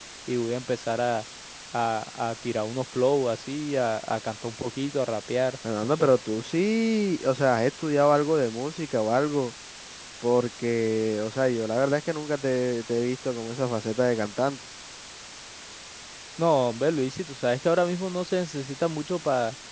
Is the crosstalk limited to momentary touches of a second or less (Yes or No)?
Yes